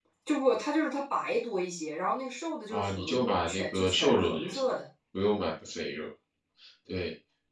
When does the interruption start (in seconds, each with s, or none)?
2.7 s